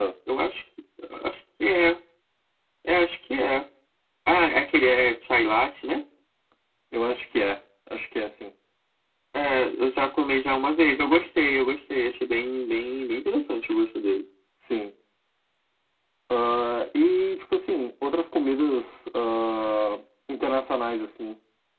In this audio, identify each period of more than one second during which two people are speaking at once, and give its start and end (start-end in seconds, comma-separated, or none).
none